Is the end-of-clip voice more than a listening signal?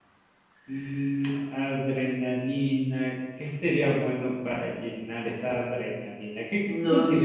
No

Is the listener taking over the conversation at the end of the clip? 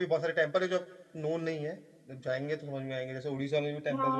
Yes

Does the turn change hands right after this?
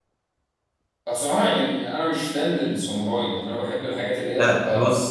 Yes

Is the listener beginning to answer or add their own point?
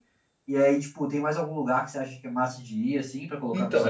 Yes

